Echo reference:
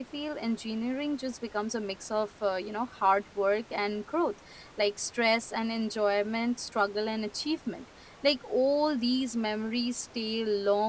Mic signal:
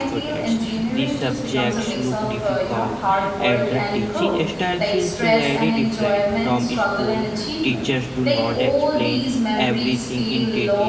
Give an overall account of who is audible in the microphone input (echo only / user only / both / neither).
both